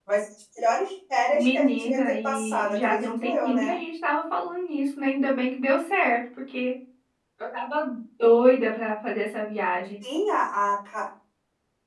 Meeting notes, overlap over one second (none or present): present